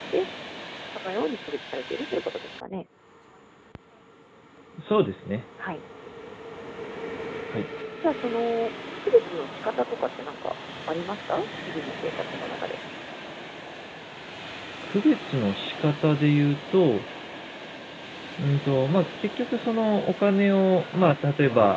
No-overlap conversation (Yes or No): Yes